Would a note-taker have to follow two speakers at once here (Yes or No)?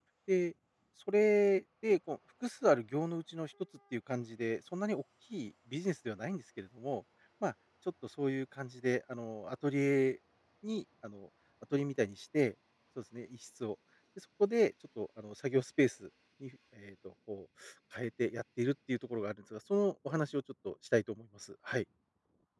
No